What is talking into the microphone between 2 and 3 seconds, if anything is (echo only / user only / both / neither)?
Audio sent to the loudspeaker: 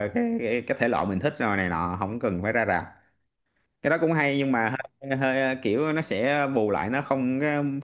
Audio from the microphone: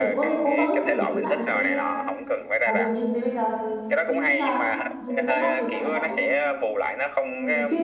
both